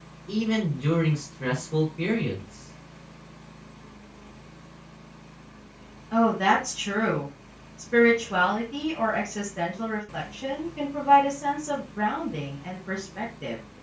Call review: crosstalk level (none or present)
none